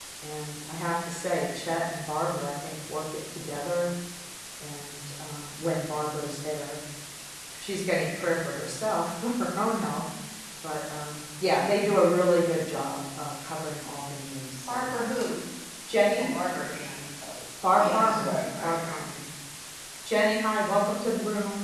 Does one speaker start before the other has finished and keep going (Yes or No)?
Yes